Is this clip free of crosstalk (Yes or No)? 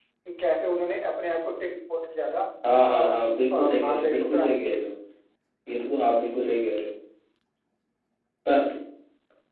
No